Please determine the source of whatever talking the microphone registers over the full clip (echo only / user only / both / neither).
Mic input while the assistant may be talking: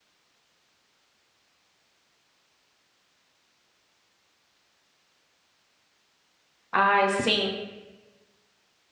user only